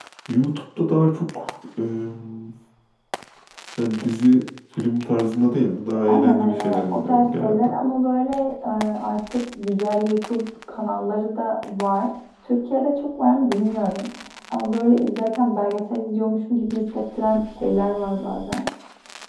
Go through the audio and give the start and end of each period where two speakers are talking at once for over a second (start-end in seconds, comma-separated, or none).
5.9-7.7